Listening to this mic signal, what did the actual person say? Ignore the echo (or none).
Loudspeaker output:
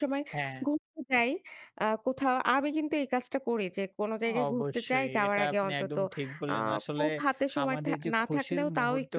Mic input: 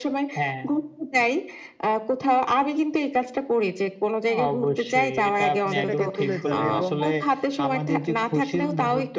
সেটাকে তুলে ধরে এবং